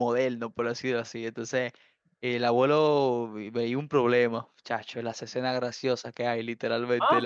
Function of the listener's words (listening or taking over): taking over